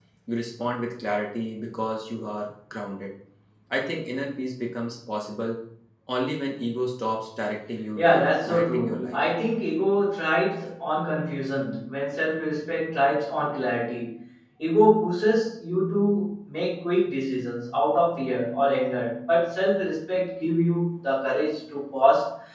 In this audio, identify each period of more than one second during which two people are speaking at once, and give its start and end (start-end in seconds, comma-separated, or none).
8.0-9.2